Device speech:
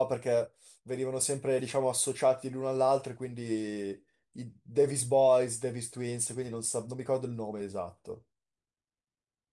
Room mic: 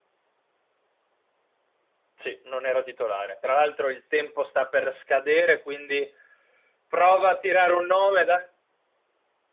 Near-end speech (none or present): present